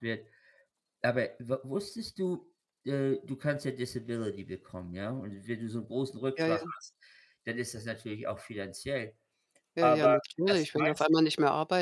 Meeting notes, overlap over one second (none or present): present